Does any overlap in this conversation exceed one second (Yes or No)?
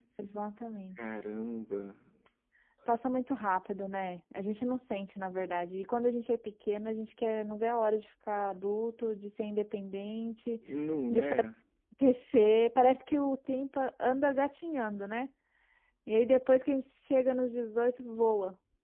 No